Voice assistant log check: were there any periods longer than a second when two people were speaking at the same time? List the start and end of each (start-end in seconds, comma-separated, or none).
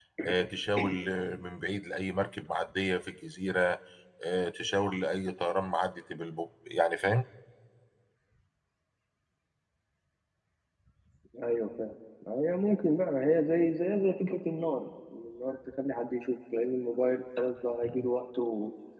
none